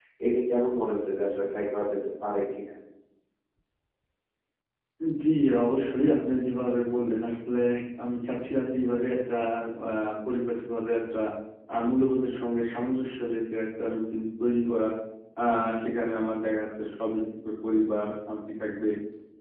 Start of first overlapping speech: none

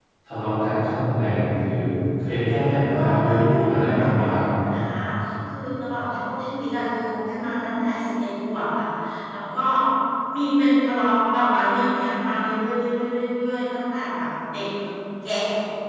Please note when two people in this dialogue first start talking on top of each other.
3 s

